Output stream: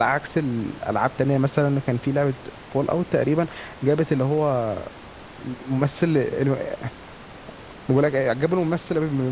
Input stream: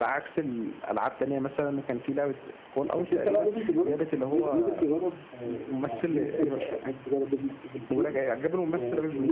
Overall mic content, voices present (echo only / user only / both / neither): both